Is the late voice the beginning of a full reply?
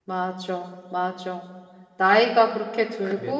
No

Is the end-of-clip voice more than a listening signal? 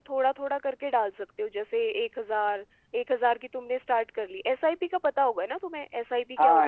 Yes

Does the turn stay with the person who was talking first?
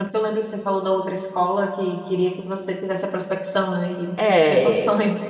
No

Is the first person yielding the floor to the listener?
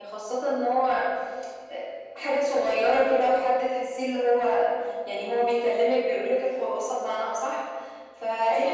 No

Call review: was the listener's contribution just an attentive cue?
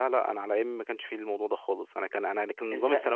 Yes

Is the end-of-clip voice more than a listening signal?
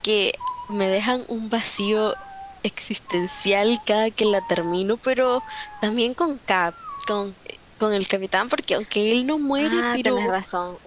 Yes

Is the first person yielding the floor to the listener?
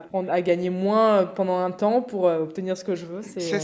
Yes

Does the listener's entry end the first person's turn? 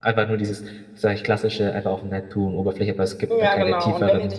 Yes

